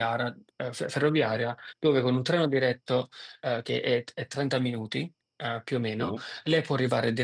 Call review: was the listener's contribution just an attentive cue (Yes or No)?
Yes